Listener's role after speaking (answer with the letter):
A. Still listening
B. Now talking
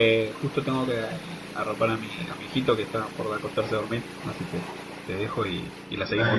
B